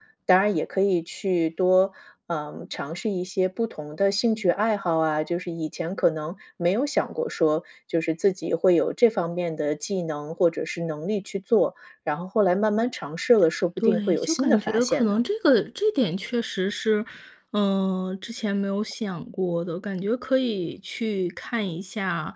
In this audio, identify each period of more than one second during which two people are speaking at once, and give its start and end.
13.8-15.2

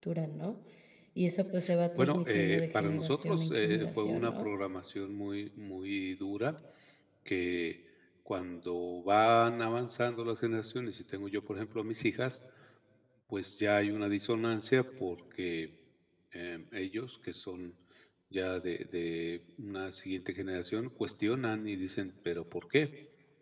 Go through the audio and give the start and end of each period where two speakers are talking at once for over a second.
2.0-4.5

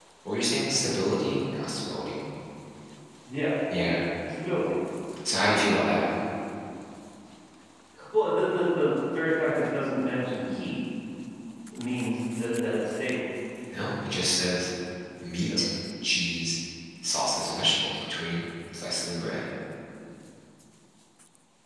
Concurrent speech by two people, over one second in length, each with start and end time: none

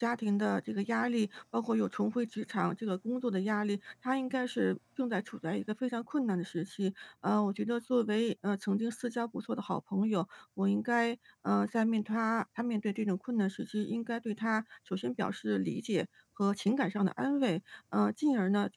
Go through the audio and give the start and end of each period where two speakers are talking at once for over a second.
none

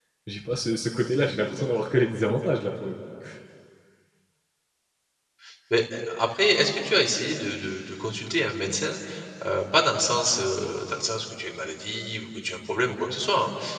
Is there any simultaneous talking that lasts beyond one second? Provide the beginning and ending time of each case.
none

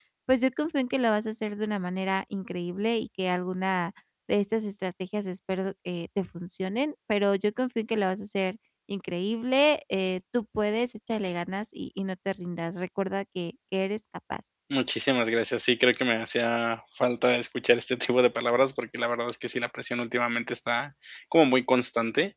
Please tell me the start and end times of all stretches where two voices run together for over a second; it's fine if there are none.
none

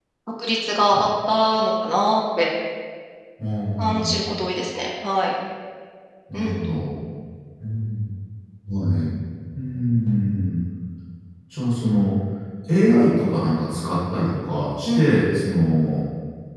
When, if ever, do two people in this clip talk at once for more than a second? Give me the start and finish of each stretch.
none

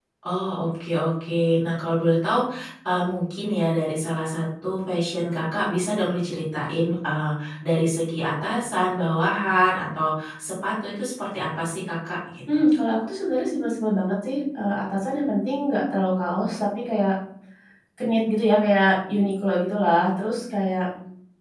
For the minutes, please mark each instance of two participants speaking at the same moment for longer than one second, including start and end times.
none

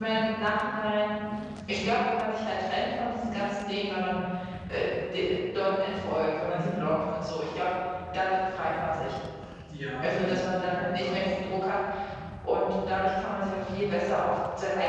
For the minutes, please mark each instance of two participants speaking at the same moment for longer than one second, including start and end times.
10.0-11.3

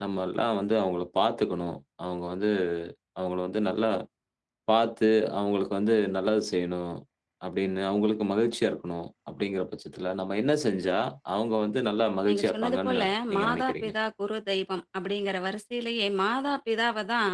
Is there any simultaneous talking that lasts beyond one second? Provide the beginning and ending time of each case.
12.3-13.9

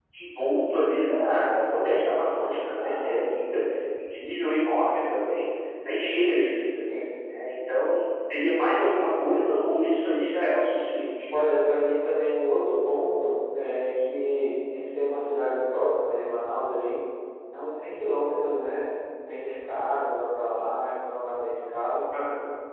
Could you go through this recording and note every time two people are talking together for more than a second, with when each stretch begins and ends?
none

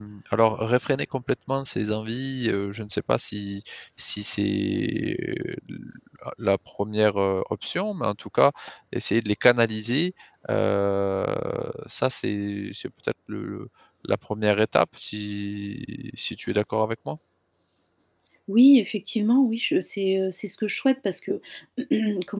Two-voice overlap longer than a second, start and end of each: none

